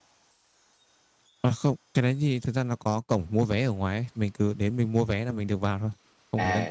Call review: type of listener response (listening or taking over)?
taking over